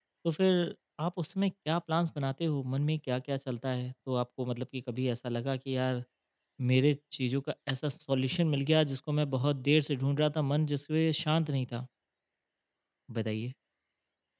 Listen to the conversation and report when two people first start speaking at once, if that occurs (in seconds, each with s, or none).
none